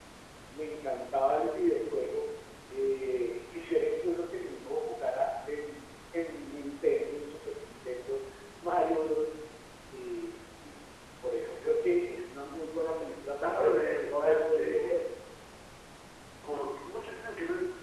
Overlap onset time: 13.4 s

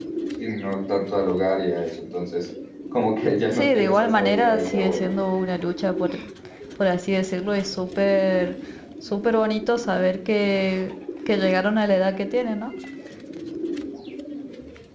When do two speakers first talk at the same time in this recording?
3.5 s

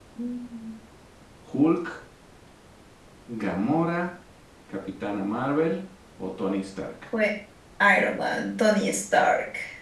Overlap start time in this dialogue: none

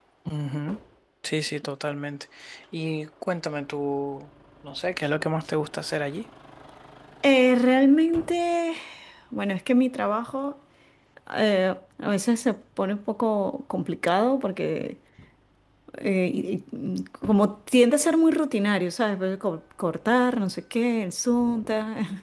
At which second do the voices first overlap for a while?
none

